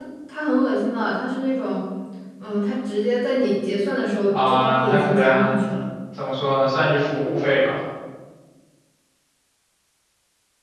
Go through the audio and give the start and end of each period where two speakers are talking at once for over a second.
4.3-5.6

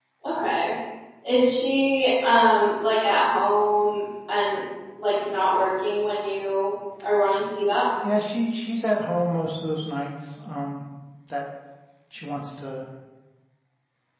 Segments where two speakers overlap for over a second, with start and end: none

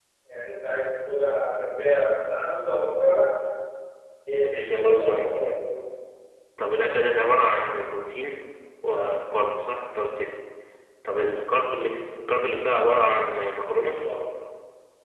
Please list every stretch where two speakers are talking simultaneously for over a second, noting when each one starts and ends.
4.4-5.7

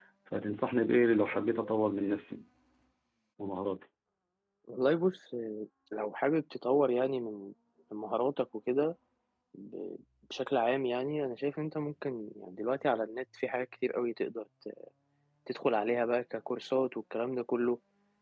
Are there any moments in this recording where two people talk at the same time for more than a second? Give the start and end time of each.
none

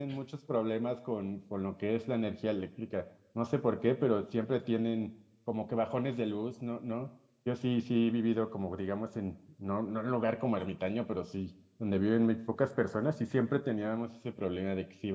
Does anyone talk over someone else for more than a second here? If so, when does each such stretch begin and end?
none

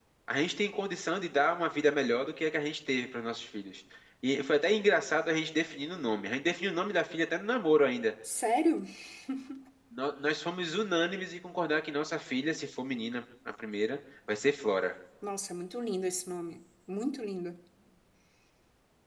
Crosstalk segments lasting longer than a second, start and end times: none

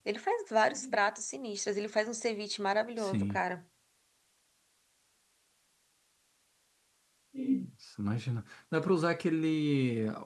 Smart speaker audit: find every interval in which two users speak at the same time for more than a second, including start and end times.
none

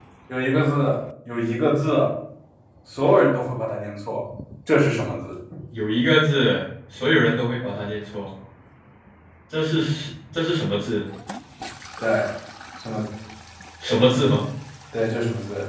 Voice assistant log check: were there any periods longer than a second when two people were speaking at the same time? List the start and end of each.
none

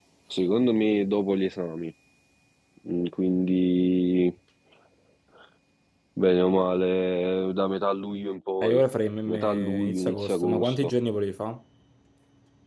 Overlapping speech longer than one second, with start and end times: 9.3-10.9

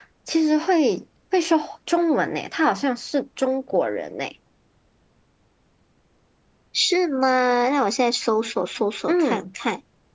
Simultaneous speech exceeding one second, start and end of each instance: none

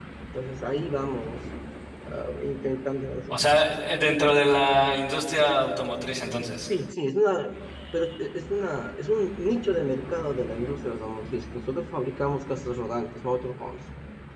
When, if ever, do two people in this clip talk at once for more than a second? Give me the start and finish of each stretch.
none

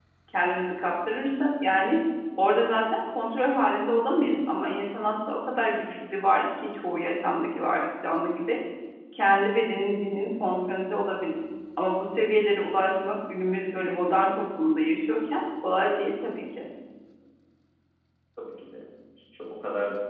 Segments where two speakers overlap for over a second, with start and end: none

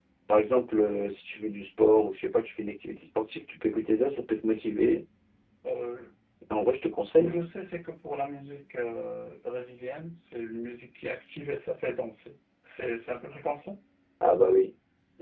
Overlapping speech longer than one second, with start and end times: none

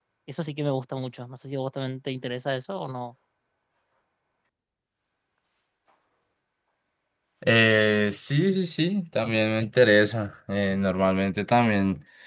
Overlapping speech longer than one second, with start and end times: none

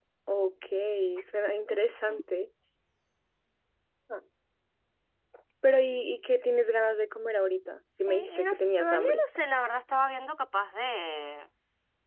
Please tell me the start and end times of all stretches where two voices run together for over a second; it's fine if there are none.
8.0-9.2

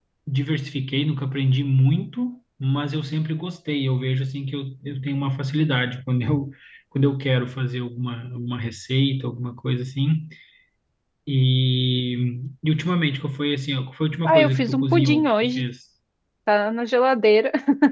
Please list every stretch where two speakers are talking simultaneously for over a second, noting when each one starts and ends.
14.2-15.7

